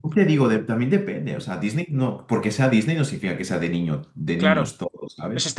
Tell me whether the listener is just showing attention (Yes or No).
No